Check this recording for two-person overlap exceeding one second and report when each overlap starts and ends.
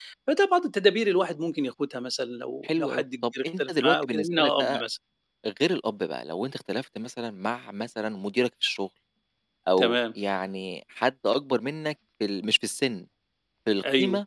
2.6-4.8

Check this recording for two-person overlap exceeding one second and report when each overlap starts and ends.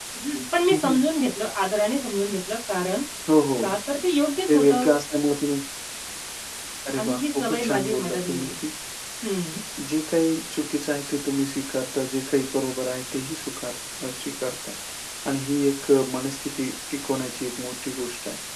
7.0-8.5

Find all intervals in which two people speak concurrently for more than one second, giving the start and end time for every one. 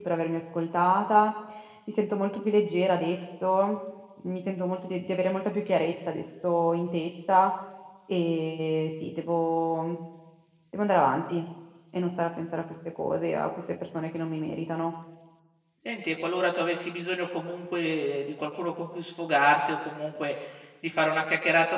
none

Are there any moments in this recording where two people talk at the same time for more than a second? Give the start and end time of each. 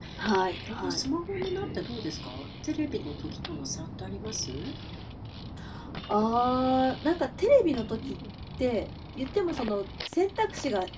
none

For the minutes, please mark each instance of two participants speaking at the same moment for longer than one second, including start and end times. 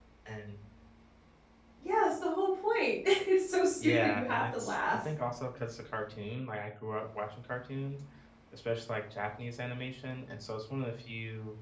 3.8-5.0

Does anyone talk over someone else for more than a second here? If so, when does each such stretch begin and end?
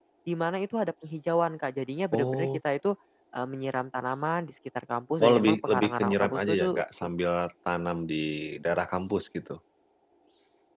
5.2-6.8

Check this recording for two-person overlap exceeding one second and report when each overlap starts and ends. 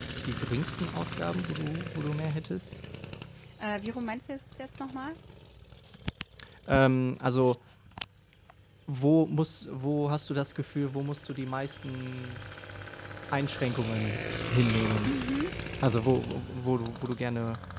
none

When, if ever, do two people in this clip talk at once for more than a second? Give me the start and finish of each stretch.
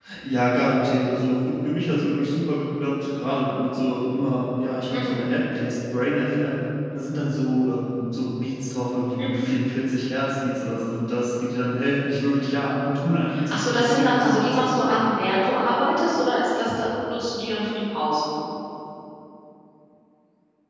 13.5-15.0

